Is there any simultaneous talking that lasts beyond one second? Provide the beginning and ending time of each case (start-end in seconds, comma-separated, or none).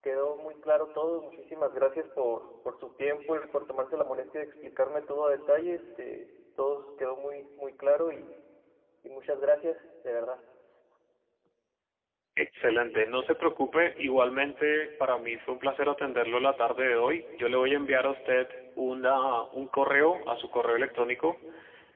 none